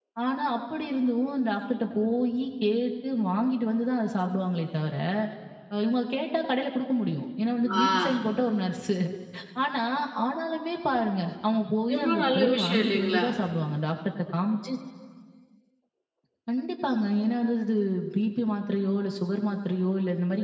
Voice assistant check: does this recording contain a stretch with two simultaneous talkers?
Yes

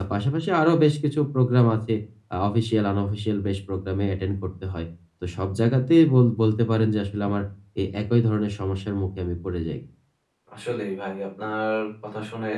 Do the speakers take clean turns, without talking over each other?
Yes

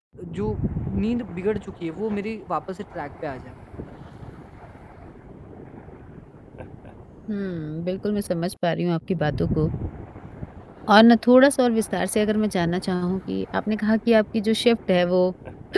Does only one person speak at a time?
Yes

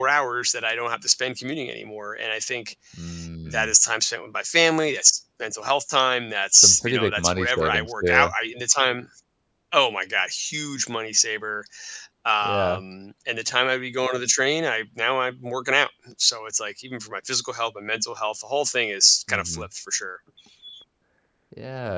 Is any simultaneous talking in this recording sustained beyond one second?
Yes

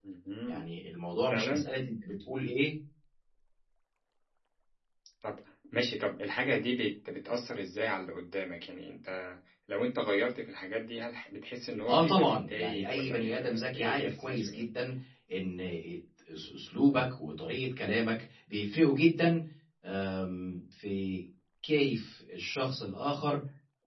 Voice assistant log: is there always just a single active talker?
No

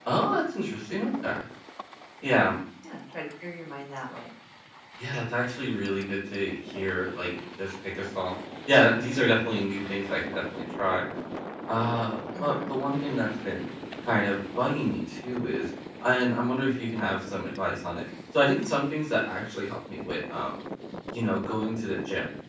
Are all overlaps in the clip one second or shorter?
Yes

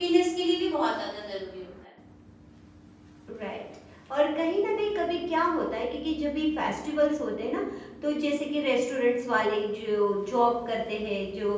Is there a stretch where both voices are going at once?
No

